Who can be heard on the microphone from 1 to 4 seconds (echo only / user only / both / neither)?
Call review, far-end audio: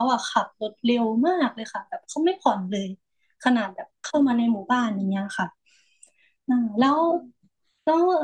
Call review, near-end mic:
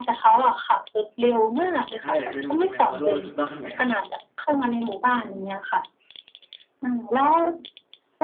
both